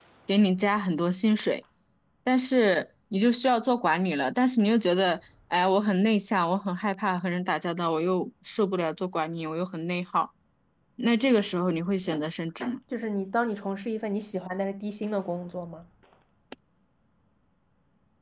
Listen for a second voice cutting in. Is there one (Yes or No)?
No